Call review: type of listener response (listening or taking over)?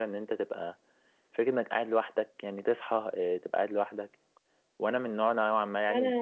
taking over